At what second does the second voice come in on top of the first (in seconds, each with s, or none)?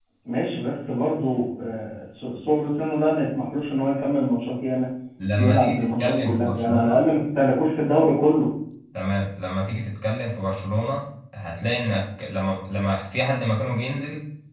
5.4 s